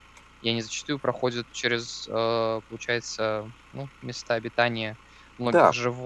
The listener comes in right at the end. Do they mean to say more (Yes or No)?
Yes